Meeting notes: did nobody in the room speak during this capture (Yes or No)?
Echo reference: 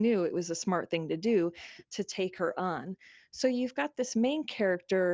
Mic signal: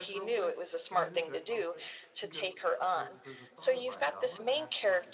No